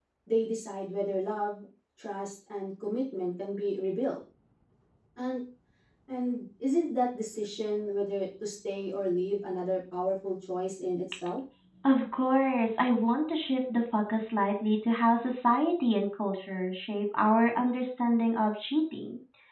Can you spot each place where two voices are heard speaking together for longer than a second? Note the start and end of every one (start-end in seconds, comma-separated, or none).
none